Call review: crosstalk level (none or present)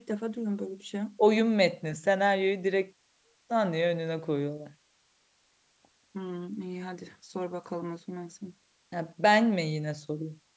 none